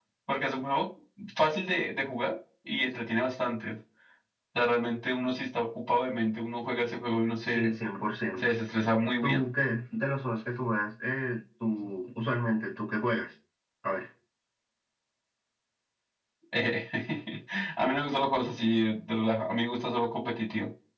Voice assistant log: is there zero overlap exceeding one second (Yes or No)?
Yes